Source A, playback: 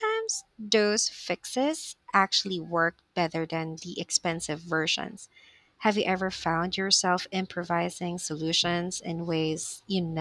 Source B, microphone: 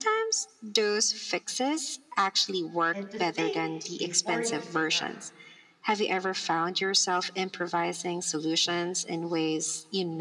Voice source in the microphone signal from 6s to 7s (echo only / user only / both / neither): echo only